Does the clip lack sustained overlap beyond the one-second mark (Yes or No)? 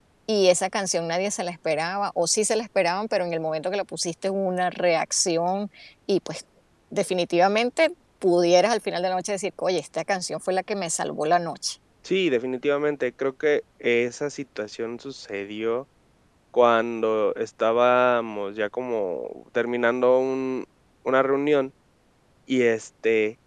Yes